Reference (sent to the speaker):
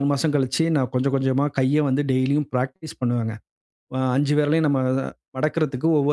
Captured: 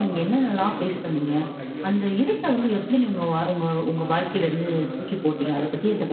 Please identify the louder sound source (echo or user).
user